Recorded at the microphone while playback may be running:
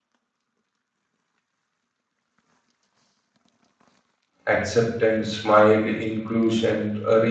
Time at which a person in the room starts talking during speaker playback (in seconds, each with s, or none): 4.5 s